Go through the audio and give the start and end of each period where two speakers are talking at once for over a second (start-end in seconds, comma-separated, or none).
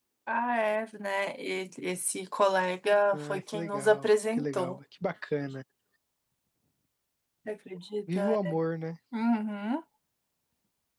3.1-4.8